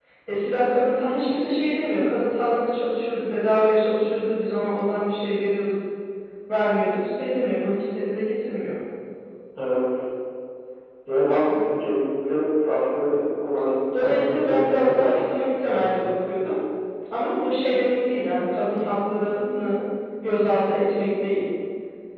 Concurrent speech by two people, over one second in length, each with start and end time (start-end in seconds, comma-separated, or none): 13.9-15.4